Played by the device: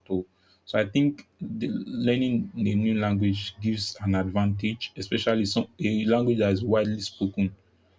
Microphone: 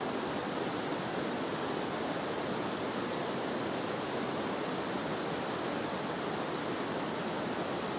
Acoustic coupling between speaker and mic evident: No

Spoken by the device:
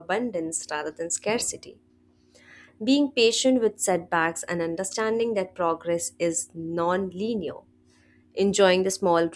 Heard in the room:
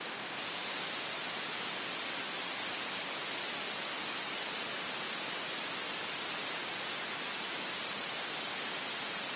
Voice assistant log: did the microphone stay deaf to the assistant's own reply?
Yes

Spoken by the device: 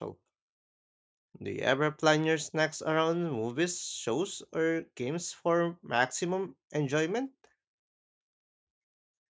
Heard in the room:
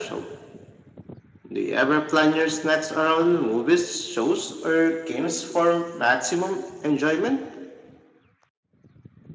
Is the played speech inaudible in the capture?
No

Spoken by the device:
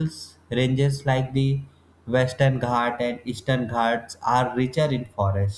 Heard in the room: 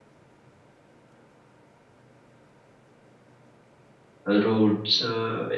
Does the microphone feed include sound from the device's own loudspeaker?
No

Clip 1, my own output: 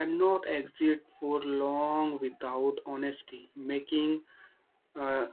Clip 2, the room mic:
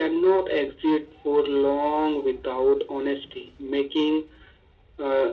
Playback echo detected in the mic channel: Yes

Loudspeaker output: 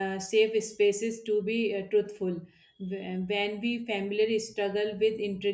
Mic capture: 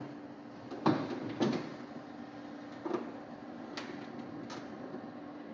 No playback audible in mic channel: Yes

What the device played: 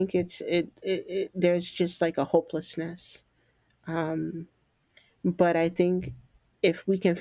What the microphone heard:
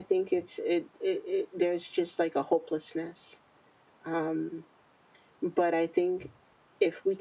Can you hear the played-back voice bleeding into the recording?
Yes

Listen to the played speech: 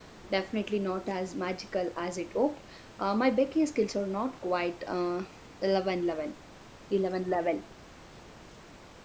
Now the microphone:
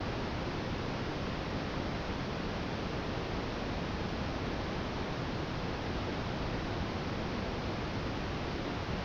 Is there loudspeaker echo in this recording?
No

